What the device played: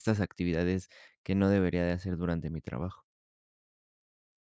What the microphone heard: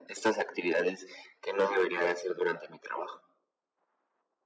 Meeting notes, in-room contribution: none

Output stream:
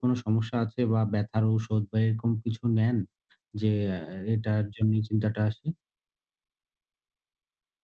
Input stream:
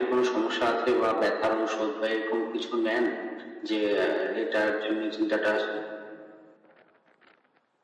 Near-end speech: none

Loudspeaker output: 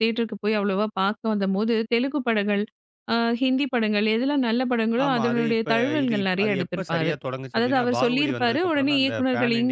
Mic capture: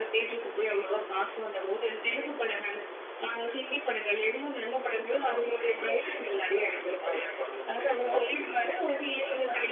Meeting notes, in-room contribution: none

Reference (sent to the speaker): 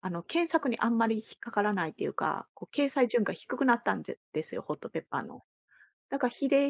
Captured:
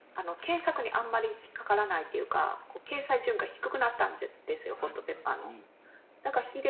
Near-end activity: present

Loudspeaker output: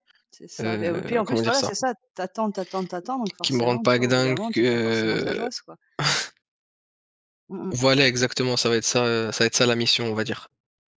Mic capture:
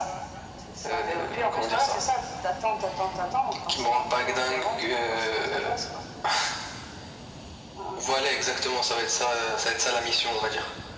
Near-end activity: none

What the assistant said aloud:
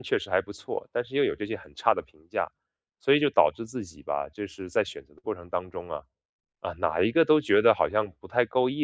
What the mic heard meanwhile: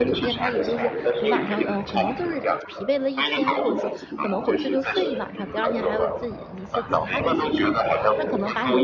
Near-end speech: present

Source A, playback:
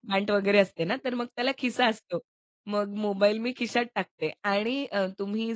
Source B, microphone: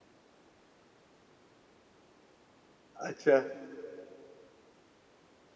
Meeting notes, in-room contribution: present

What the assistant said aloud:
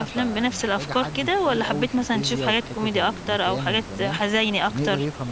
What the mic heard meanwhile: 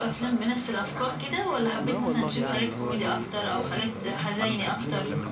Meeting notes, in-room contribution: present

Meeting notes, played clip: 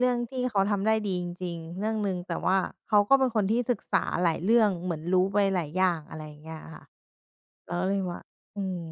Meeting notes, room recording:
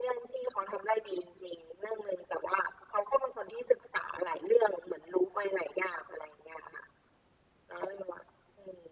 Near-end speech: none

